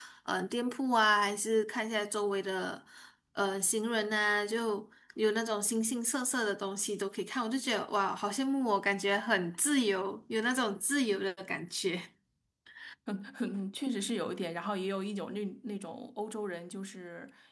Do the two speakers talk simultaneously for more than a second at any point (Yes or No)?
No